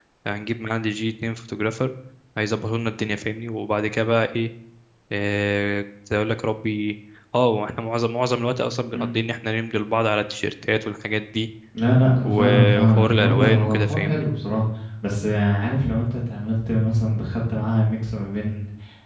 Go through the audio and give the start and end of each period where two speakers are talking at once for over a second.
12.2-14.3

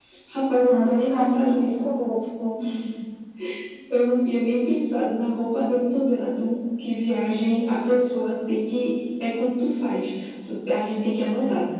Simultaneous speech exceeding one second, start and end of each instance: 0.7-1.9

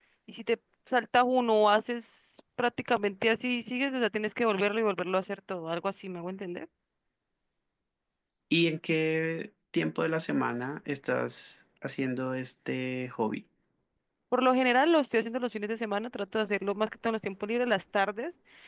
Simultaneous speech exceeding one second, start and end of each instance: none

